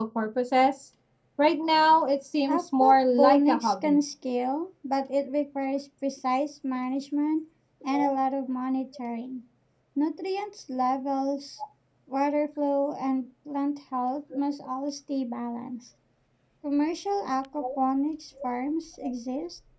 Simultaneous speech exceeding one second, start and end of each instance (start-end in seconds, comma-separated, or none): 2.5-4.0